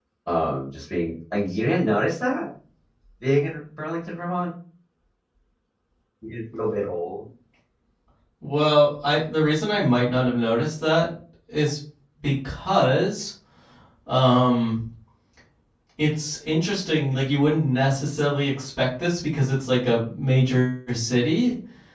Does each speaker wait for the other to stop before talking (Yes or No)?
Yes